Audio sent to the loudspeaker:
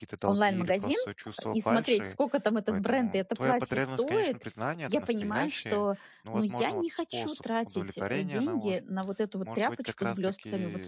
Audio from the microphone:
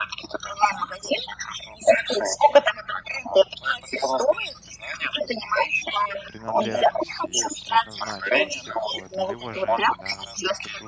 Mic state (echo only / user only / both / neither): both